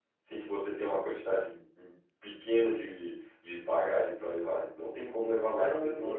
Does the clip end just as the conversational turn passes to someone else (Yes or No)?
Yes